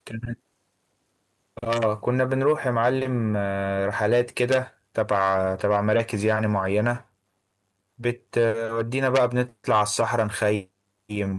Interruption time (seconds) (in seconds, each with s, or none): none